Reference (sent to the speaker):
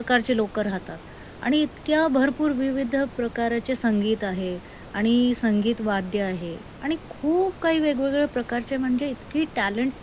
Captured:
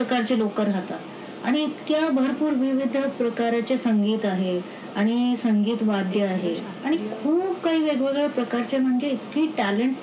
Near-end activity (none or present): present